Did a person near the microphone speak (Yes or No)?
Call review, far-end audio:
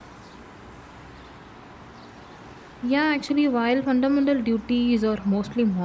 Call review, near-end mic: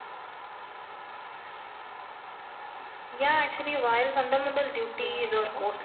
Yes